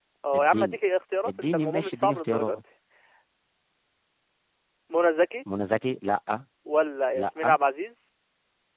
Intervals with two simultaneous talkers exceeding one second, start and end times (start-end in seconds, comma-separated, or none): 1.2-2.6